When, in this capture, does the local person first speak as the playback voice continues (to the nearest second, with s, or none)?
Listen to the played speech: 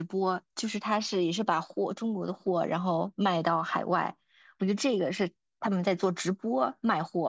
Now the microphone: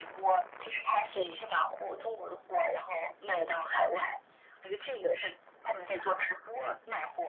none